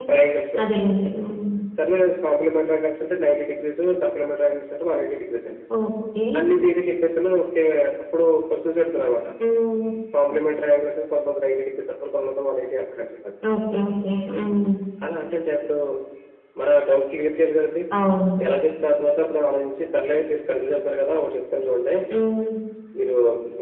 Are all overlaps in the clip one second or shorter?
Yes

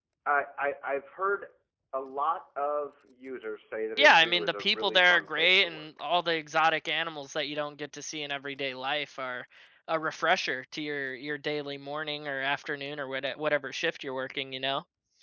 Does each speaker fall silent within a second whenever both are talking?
No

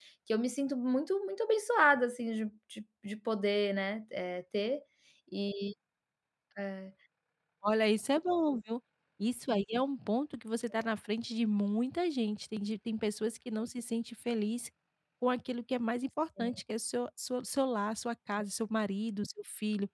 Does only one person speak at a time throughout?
Yes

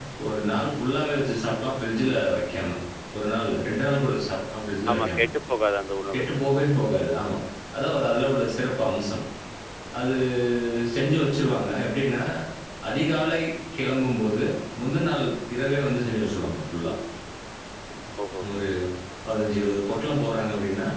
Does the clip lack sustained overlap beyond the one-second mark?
Yes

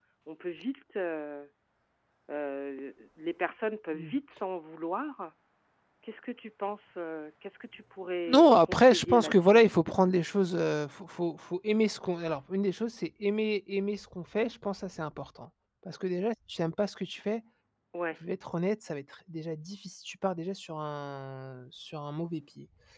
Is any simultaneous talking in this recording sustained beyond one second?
Yes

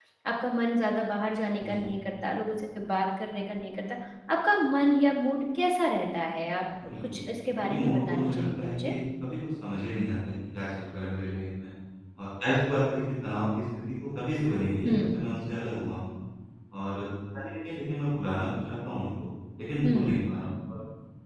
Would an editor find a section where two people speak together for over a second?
Yes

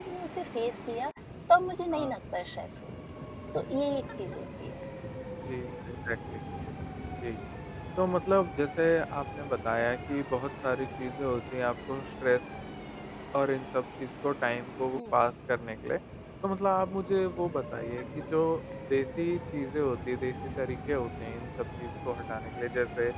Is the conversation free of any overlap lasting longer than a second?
Yes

